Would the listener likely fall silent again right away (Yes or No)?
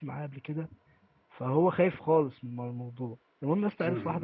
No